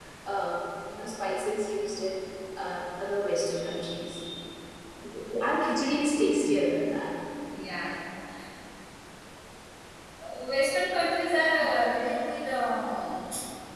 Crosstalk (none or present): none